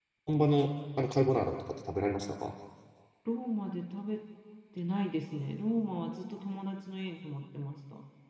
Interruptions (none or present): none